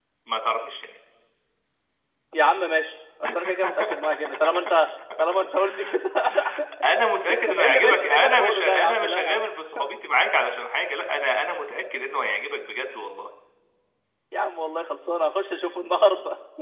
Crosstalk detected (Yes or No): Yes